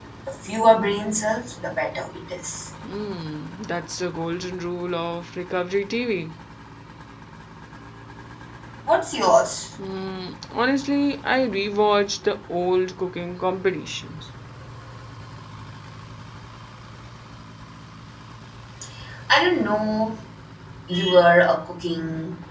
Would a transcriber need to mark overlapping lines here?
No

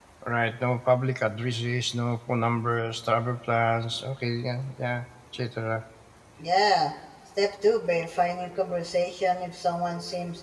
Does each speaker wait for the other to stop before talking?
Yes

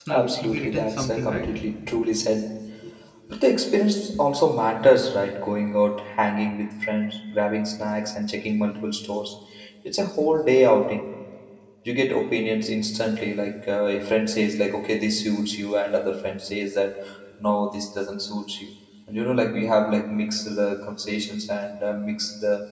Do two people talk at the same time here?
Yes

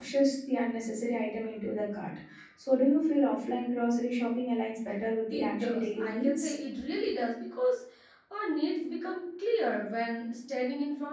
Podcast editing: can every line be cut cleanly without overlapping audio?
No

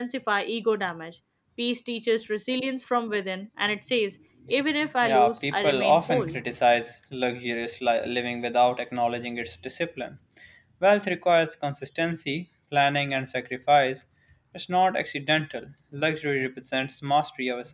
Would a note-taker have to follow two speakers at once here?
Yes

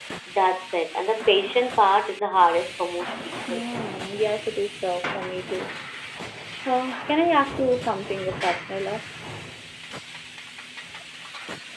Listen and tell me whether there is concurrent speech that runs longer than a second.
No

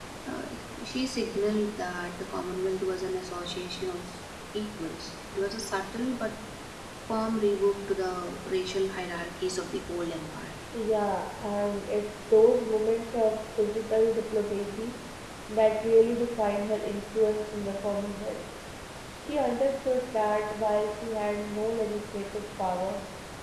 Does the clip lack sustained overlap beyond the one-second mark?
Yes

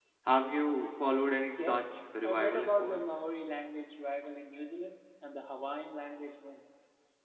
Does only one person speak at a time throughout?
No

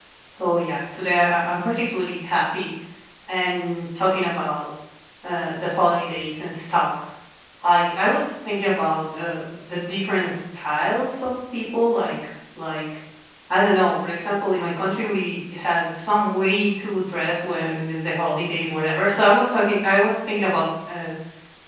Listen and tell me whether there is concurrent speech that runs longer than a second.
No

